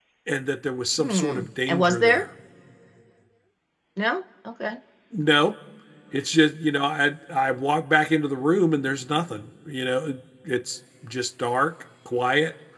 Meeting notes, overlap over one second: present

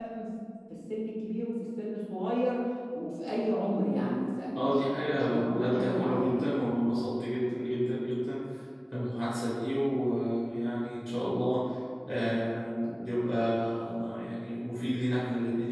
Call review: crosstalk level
present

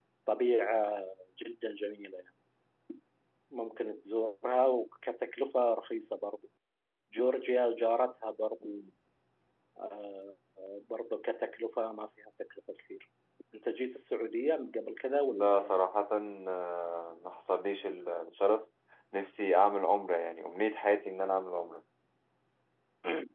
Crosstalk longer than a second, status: none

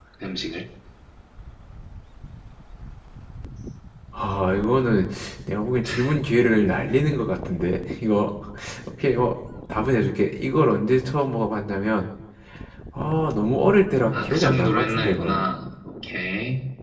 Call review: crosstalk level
present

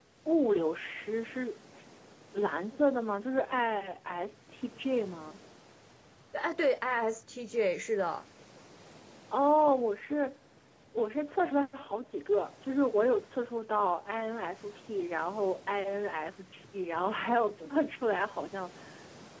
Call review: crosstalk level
none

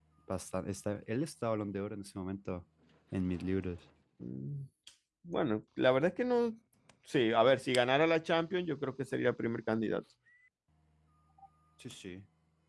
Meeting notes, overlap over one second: none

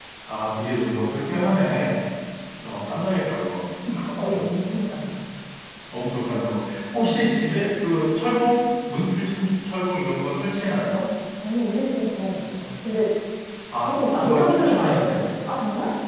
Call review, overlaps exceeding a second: present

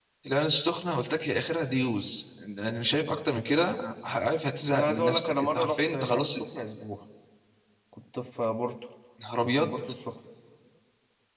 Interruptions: present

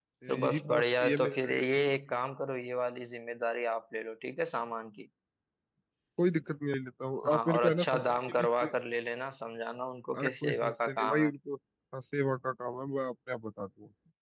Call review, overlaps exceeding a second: present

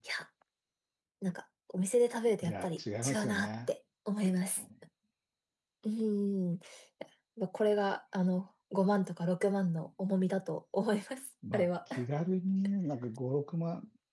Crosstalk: present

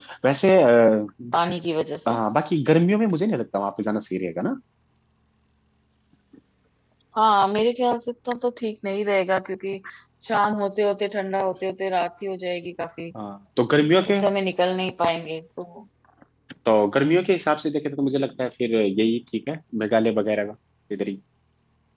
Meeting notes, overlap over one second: none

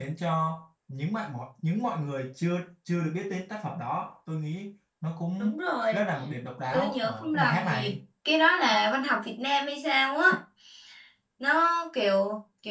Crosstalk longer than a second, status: present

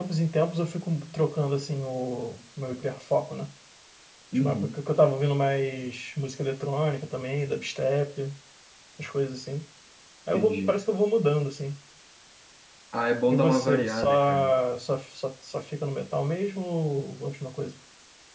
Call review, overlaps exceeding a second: present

